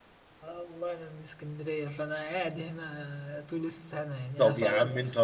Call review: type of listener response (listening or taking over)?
taking over